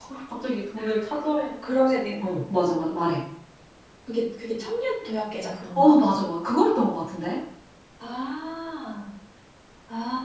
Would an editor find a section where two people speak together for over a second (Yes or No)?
No